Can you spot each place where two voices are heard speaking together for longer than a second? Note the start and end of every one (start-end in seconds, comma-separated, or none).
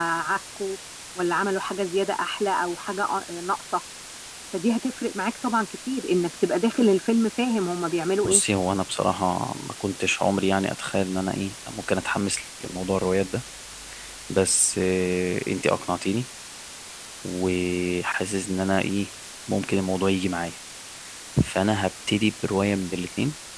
none